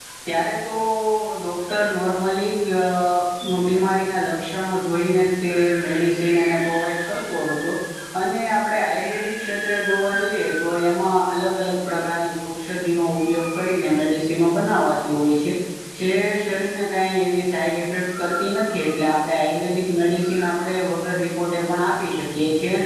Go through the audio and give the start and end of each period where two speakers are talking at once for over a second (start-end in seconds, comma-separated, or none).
none